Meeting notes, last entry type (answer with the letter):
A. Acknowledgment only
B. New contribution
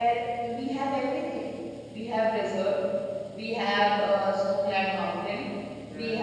A